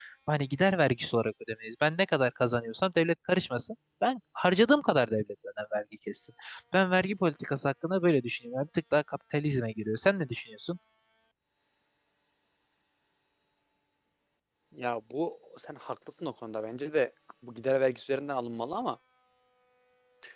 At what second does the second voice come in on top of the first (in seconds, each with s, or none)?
none